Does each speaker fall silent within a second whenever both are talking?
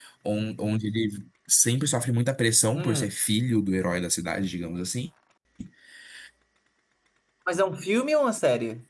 Yes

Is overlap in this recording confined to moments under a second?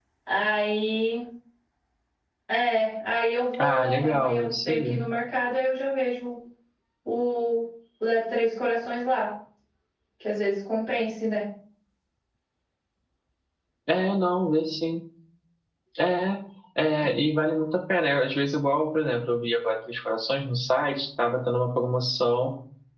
No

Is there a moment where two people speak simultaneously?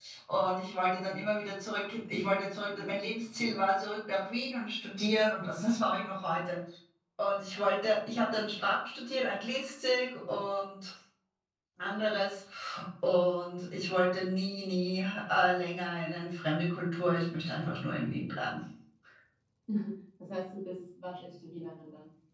No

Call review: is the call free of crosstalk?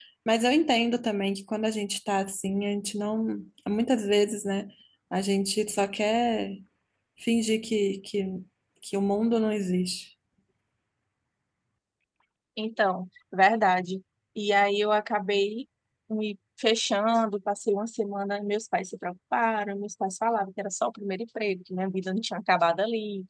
Yes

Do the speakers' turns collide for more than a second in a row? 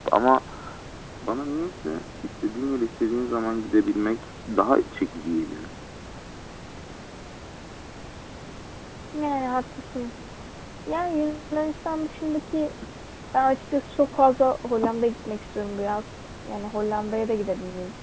No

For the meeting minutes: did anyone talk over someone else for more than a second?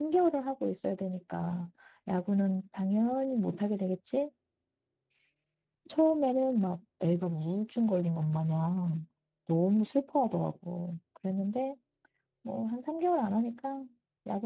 No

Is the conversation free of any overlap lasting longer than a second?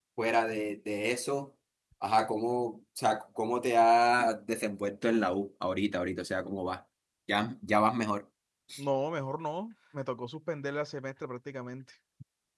Yes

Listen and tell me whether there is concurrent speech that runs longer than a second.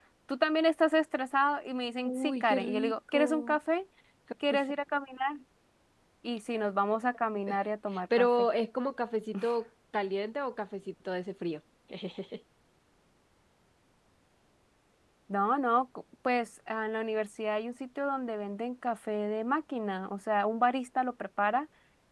Yes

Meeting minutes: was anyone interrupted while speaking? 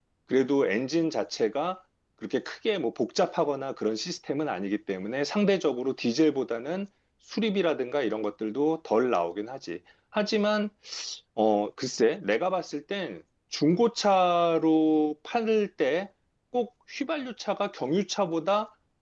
No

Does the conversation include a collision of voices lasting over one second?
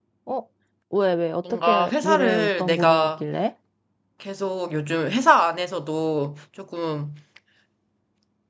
Yes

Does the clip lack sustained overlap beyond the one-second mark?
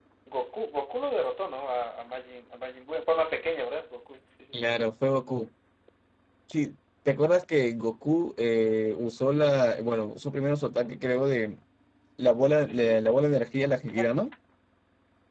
Yes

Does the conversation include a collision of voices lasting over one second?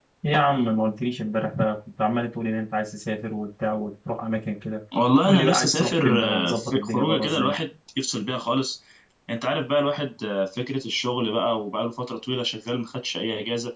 Yes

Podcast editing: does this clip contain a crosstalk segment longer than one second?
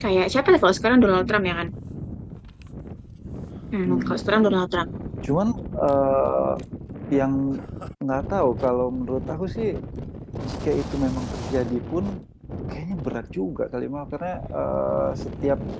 No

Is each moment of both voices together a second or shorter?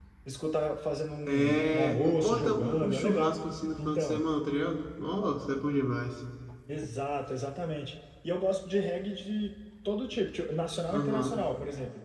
No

